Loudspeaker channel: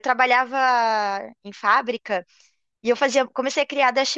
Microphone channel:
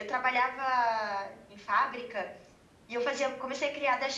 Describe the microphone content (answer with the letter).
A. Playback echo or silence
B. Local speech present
A